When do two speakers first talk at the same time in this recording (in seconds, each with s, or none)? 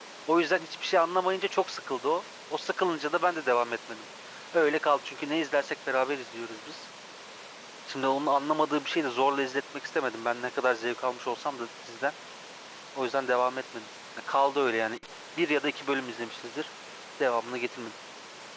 none